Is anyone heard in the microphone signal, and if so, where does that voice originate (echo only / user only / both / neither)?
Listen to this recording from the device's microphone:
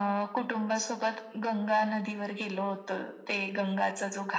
echo only